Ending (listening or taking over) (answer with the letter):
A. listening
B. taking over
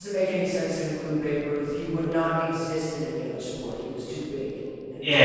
B